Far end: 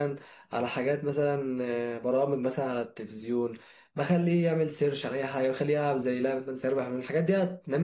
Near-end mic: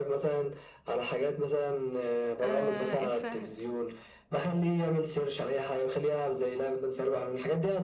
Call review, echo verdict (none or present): present